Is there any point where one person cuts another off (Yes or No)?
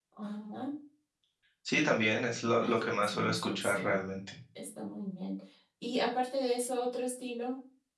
Yes